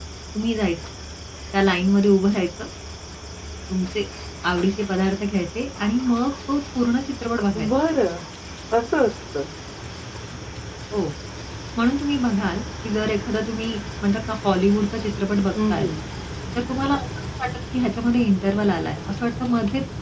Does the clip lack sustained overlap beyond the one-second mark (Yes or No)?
Yes